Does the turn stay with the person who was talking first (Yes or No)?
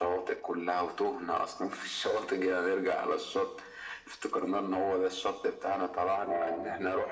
Yes